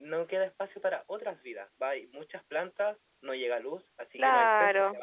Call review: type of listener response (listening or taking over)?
taking over